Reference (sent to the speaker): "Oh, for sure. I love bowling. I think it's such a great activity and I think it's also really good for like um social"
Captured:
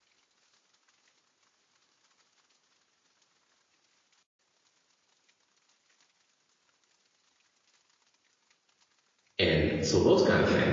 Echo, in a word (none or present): none